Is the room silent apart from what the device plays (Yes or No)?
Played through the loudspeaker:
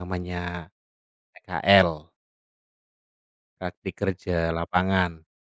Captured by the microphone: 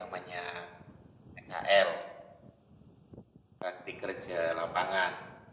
Yes